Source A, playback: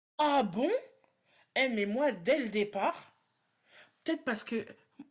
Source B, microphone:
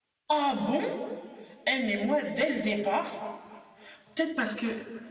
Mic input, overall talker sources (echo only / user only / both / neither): echo only